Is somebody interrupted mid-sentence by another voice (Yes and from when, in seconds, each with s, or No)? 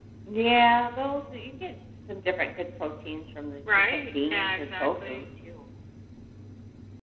Yes, from 3.7 s